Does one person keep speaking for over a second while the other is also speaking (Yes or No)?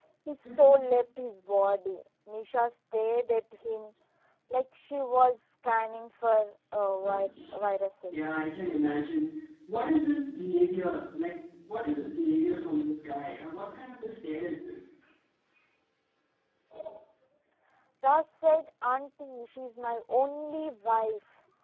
No